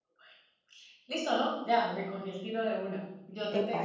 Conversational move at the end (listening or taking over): listening